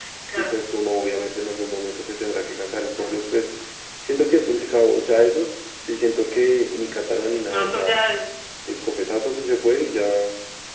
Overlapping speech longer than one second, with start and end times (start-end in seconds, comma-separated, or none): none